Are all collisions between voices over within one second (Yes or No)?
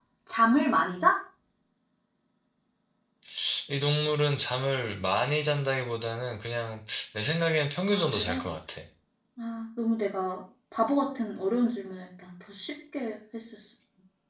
Yes